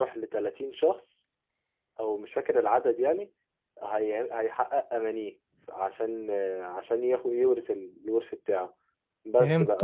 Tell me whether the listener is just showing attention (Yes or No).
Yes